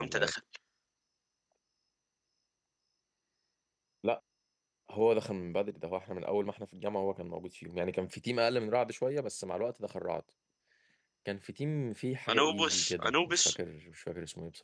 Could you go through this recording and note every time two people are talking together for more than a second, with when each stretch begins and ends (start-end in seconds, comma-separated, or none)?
12.3-13.6